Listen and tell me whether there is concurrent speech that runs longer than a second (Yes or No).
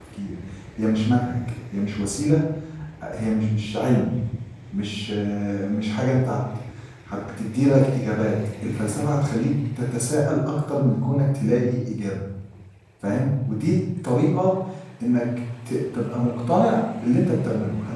No